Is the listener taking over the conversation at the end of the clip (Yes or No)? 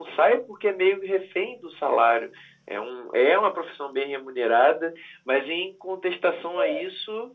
No